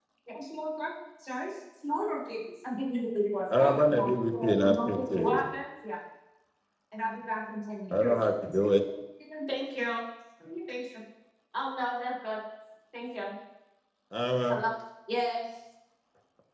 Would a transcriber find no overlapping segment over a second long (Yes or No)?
No